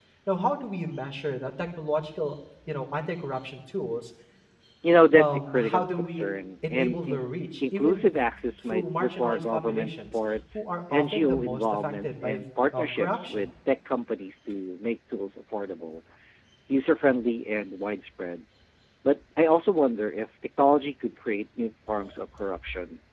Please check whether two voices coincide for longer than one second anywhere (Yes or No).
Yes